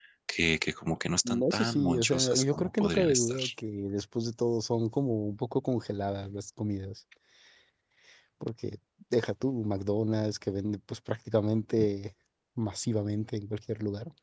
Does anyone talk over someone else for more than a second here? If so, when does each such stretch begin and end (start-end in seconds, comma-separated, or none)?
1.2-3.4